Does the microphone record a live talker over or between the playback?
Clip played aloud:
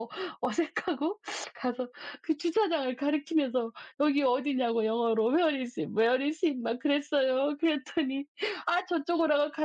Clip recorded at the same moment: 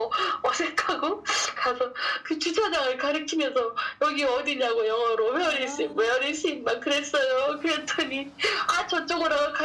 Yes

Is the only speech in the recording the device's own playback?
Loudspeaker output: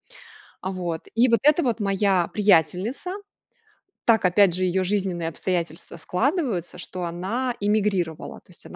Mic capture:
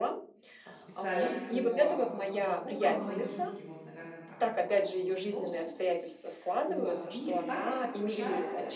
No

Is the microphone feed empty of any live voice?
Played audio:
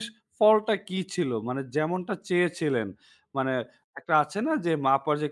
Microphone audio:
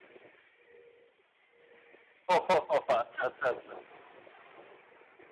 No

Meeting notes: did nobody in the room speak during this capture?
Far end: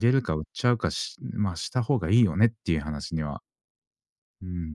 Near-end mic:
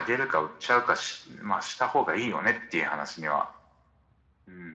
Yes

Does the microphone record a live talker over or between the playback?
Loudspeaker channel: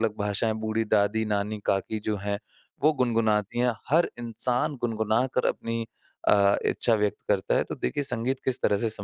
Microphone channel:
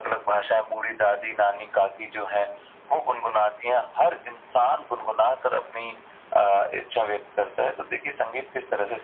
No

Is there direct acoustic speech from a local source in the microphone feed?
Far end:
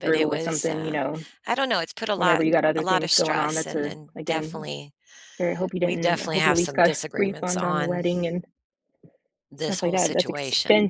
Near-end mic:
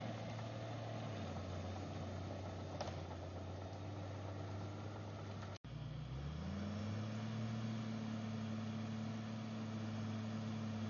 No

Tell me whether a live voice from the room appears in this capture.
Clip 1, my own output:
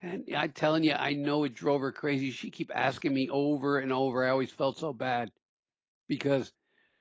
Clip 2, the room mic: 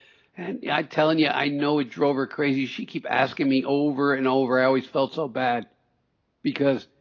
No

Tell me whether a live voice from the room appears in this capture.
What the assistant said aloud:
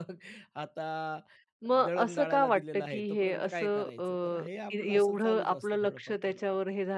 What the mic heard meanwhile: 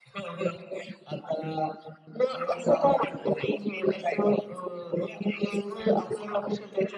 No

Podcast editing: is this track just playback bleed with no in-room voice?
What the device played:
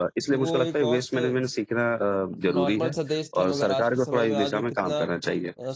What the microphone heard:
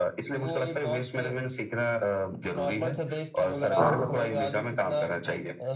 No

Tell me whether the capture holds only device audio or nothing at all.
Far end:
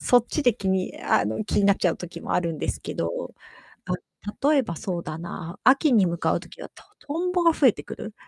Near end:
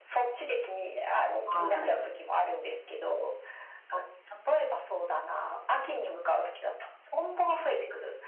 No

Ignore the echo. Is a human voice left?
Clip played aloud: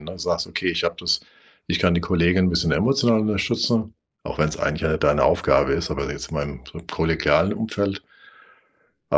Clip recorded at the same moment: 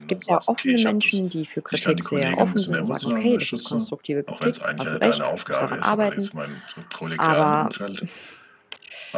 Yes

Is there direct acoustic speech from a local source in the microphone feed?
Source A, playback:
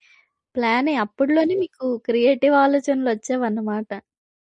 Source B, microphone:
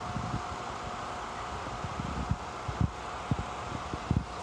No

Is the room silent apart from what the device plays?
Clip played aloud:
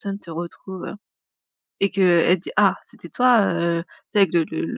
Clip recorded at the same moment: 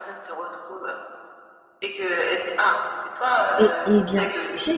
No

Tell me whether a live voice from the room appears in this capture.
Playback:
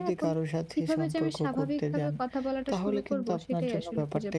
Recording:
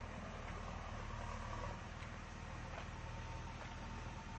No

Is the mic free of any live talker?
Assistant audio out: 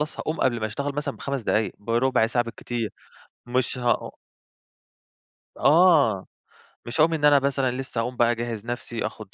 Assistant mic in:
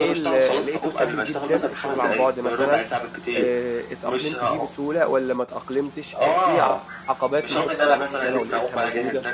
No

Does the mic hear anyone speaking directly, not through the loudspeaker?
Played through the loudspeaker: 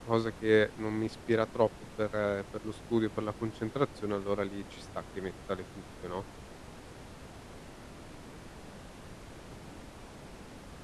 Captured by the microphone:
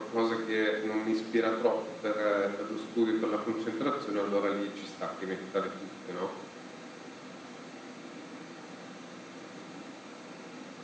No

